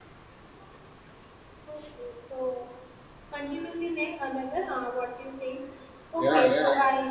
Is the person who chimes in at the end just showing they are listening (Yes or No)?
No